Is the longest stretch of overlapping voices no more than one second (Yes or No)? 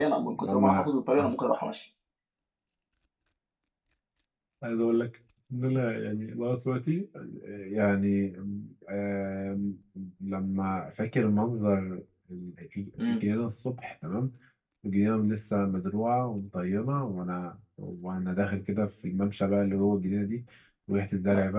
Yes